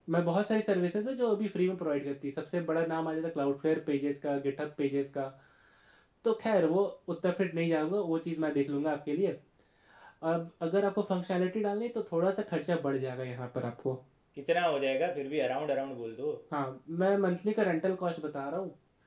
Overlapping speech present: No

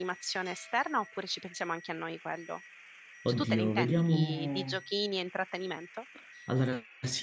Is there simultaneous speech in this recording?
Yes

